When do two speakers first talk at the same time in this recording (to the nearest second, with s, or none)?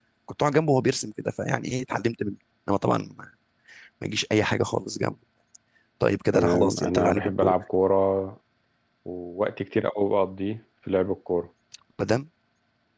6 s